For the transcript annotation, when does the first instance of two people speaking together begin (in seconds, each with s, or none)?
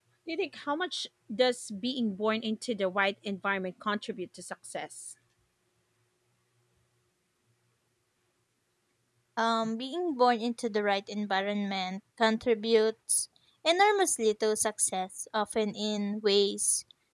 none